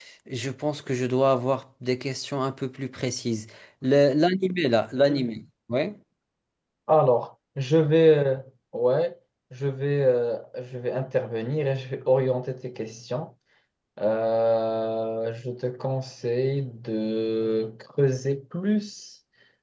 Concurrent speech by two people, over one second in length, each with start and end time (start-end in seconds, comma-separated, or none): none